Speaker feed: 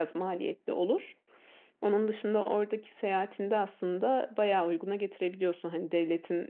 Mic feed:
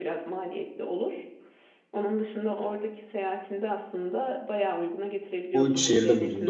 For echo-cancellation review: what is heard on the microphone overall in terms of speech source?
both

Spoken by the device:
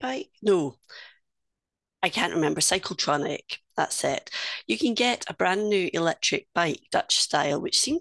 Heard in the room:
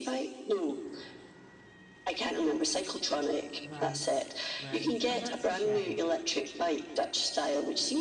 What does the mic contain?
both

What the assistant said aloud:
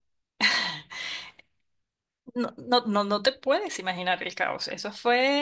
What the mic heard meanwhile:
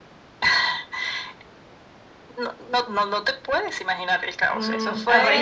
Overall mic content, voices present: both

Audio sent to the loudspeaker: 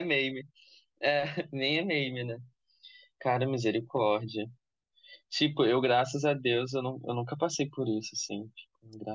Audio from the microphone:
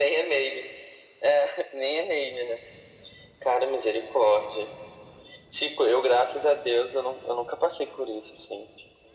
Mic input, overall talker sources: echo only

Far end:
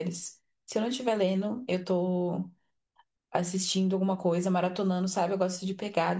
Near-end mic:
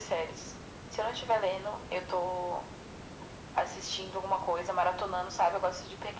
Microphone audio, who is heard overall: echo only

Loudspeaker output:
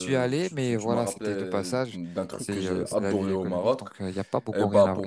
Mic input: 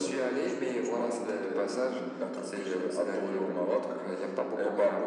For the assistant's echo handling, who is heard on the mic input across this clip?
echo only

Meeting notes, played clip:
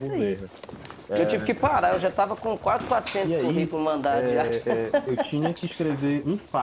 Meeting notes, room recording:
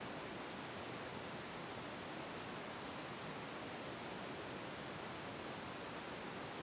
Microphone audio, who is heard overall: neither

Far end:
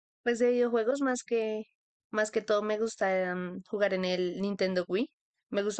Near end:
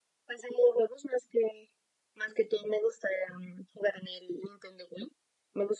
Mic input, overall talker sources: echo only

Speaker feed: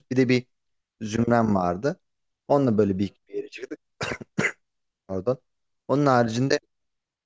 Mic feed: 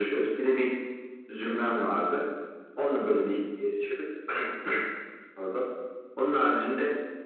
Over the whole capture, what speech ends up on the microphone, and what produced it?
echo only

